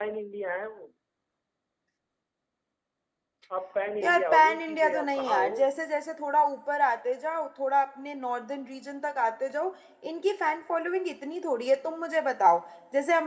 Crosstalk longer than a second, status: present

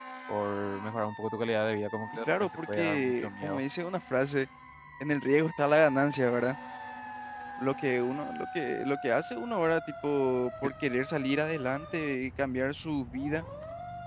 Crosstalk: present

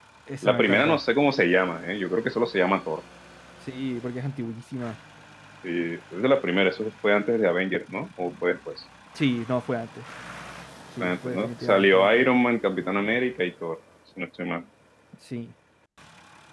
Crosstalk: present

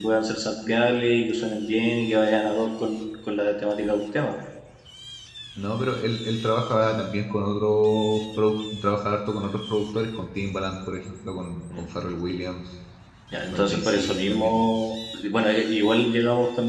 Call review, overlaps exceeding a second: present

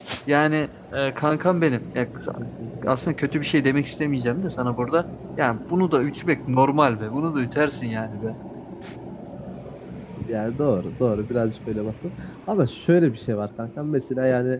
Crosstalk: none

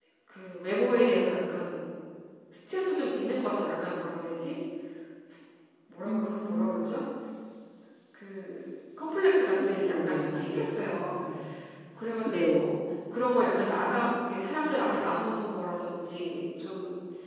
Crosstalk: present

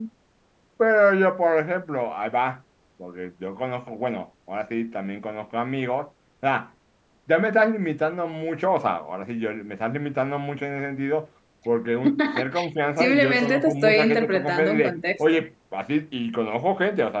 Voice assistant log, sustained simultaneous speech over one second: present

